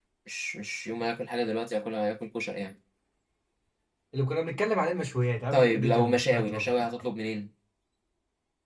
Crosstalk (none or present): present